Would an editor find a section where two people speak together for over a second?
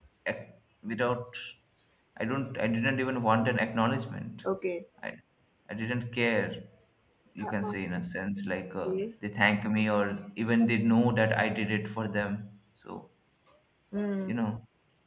No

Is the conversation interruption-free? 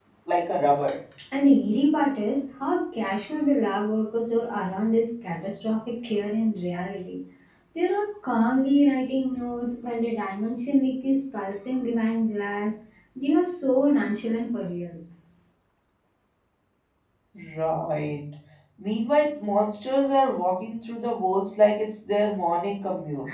Yes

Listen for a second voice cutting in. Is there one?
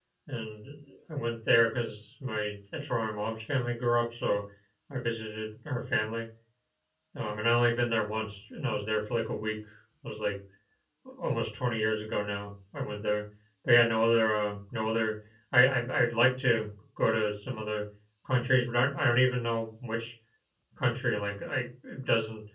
No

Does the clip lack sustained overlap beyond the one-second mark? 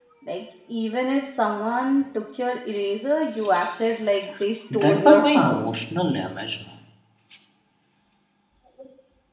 No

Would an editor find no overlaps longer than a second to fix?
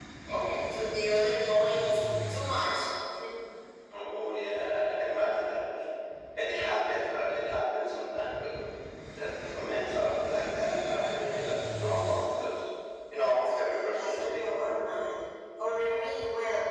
No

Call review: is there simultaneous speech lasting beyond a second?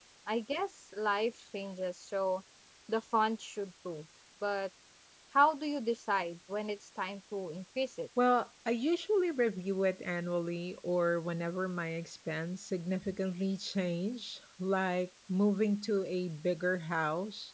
No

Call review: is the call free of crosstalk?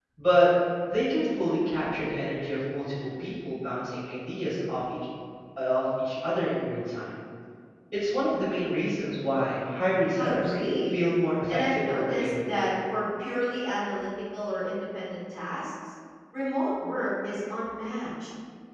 No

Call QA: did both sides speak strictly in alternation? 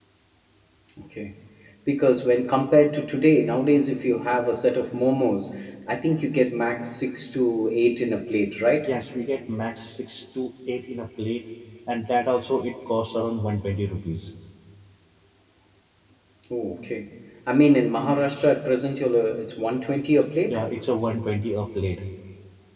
Yes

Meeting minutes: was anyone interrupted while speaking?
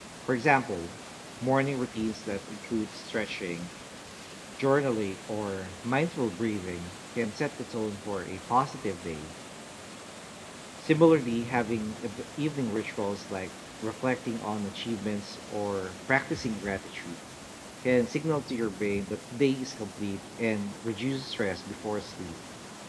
No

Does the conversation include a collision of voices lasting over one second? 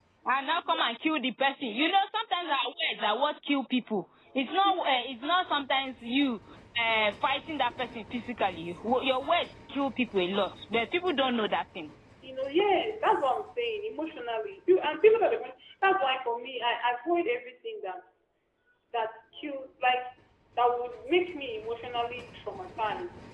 No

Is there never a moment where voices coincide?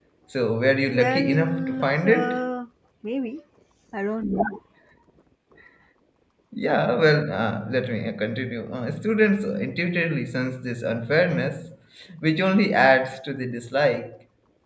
No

